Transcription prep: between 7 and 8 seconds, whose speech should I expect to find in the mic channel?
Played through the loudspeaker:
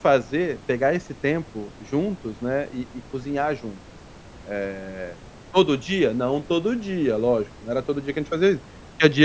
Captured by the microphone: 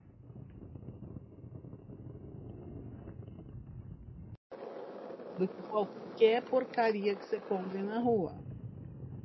user only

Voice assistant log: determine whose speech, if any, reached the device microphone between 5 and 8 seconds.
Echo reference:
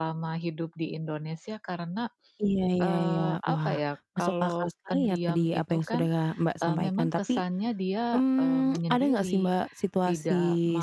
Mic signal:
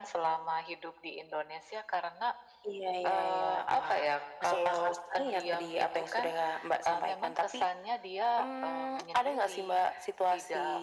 echo only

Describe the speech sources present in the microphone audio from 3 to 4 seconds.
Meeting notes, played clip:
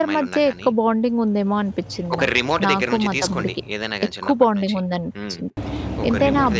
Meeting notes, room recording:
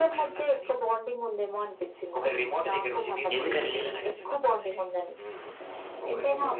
both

